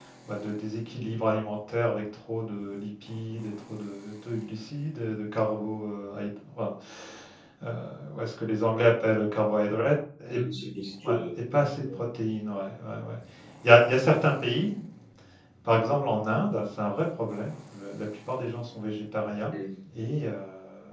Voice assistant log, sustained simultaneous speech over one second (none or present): none